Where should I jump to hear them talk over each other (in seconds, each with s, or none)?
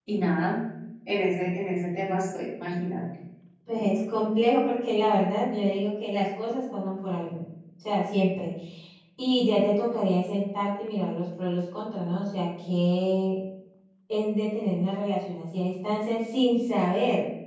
none